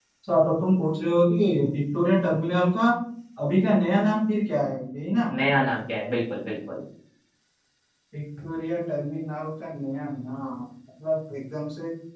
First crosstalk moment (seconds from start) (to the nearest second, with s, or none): none